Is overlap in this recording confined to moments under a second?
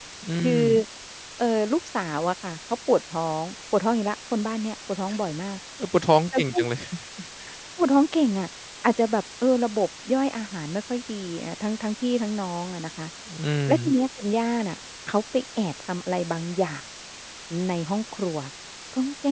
Yes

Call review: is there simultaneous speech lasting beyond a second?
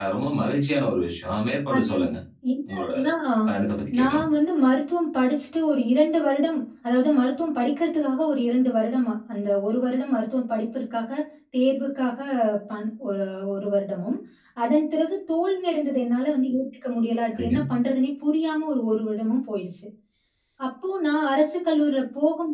No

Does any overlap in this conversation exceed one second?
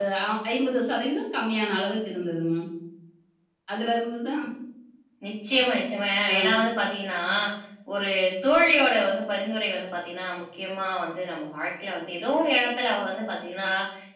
No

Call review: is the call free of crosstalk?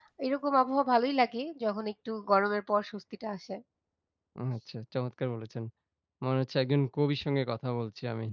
Yes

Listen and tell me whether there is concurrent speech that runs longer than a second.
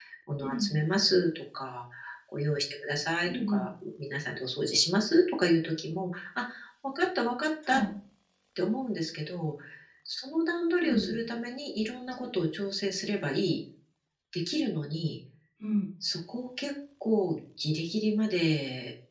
No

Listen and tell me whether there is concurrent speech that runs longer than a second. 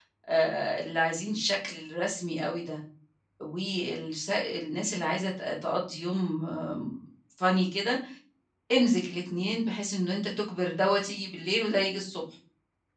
No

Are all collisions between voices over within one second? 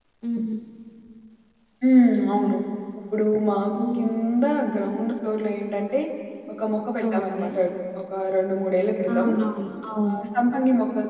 Yes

